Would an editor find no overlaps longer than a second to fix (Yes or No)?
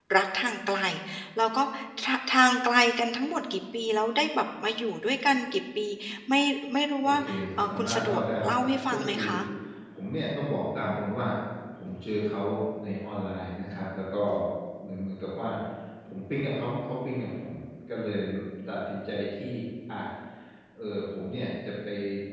No